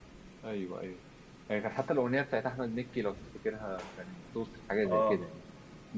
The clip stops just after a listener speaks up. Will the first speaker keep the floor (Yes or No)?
No